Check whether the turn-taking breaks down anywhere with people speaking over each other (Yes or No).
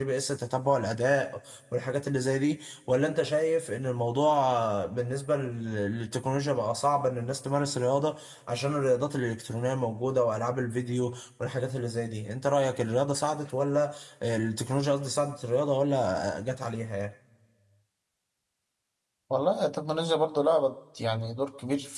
No